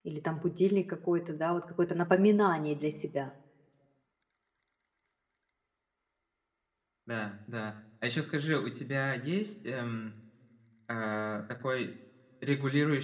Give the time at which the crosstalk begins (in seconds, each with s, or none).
none